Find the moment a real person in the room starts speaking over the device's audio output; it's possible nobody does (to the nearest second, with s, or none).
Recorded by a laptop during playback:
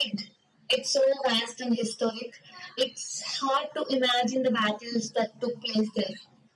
none